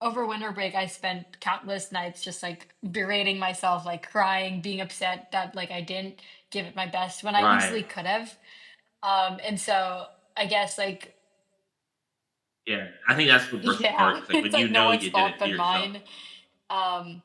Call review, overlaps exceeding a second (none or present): present